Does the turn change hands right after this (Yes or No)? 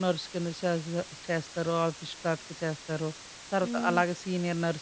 No